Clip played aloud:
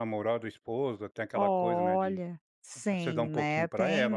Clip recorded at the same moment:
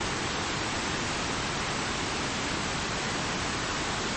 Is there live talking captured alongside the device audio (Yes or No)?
No